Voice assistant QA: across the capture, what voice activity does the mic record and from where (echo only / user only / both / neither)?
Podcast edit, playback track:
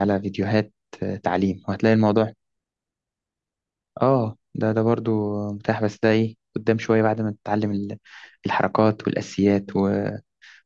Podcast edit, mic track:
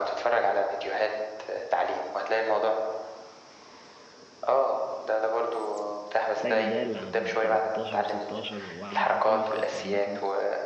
both